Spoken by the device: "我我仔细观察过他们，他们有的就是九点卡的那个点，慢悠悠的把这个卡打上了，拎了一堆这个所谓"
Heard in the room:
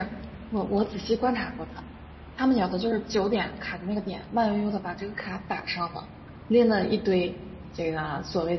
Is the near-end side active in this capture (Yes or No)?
No